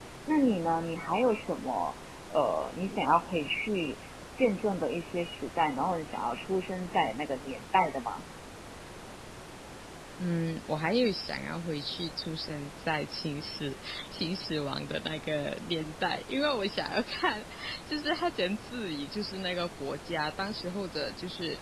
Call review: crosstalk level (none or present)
none